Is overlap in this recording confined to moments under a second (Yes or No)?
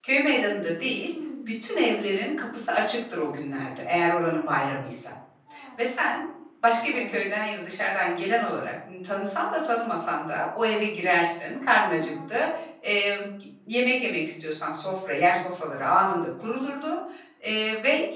Yes